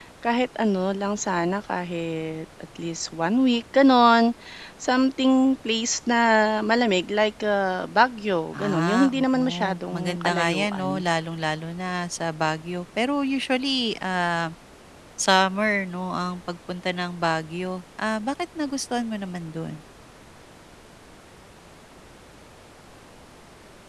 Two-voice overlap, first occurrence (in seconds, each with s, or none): 8.5 s